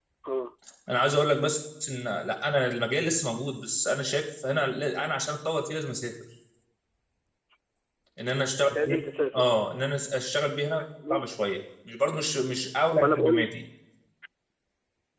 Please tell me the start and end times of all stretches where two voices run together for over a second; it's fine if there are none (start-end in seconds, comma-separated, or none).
none